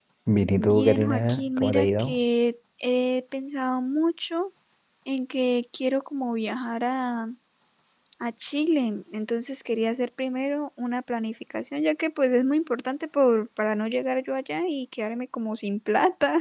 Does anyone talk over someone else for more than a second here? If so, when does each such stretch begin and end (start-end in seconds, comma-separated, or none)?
0.6-2.2